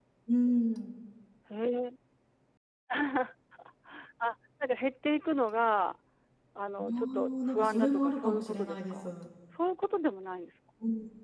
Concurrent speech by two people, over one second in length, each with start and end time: 6.8-9.1

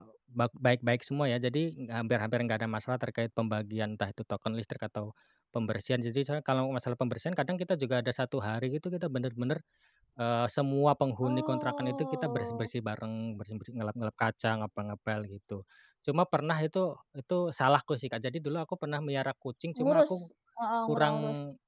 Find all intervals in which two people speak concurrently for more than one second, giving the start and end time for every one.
11.2-12.7

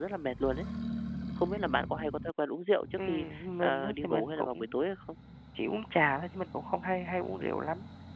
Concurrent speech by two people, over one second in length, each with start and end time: 3.1-4.5

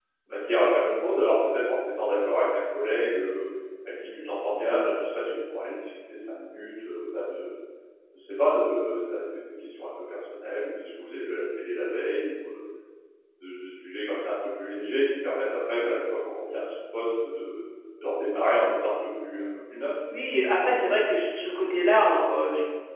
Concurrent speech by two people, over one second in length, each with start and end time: none

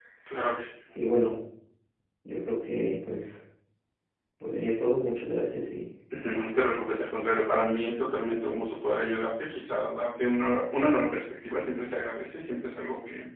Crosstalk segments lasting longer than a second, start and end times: none

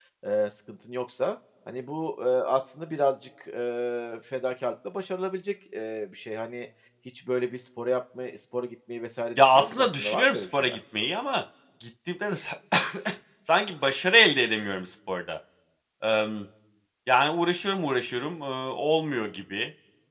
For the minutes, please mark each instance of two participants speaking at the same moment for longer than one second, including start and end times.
9.4-10.8

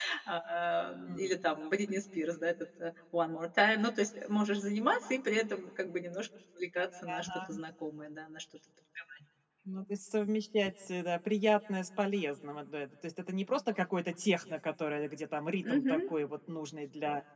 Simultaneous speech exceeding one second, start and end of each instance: none

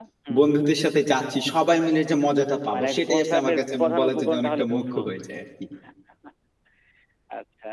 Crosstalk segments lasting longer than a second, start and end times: 2.7-5.0

